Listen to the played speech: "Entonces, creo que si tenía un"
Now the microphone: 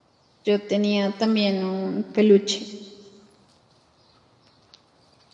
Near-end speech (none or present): present